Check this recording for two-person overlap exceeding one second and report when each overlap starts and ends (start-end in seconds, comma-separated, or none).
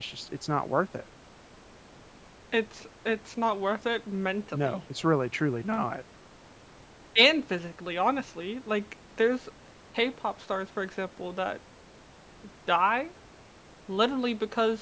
none